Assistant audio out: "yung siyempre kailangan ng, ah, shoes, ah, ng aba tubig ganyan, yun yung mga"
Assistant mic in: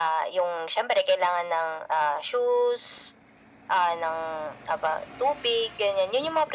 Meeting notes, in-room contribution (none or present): none